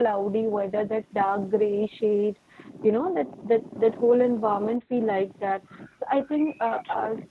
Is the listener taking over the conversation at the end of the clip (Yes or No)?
No